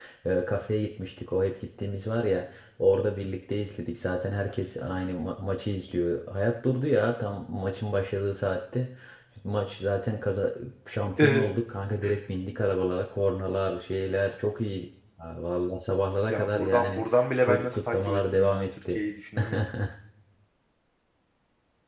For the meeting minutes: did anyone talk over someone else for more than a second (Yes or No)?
Yes